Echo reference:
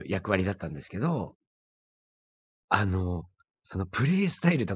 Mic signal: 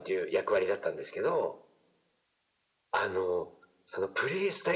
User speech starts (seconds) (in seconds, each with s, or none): none